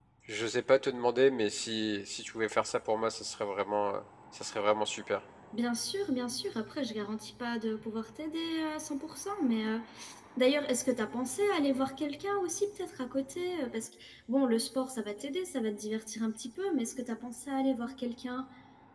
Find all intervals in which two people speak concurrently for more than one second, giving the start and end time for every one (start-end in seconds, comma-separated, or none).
none